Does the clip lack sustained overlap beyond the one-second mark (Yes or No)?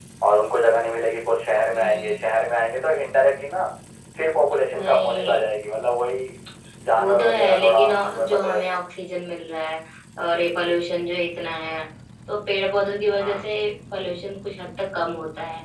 No